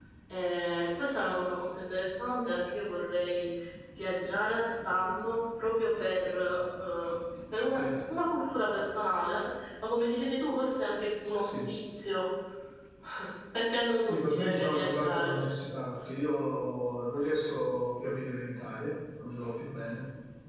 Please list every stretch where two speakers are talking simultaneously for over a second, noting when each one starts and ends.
14.0-15.3

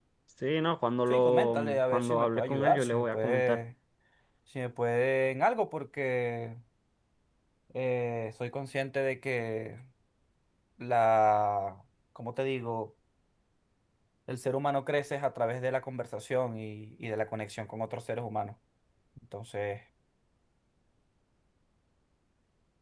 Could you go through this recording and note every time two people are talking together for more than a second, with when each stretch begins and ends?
1.1-3.6

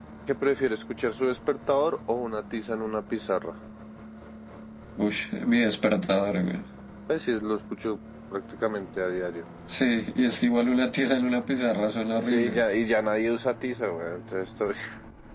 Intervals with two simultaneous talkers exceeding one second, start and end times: none

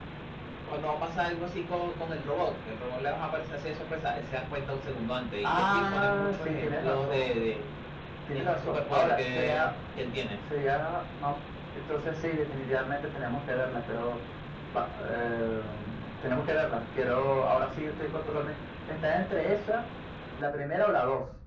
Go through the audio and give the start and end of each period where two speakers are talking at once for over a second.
5.4-7.4, 8.3-9.7

